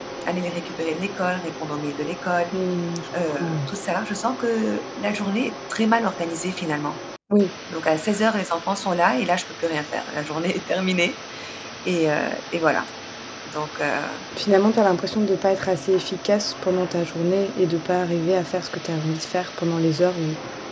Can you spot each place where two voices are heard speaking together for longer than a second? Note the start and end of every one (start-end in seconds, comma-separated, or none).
none